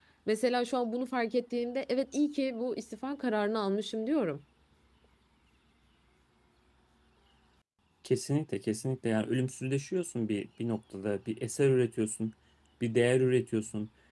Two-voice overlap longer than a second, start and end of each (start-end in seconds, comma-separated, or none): none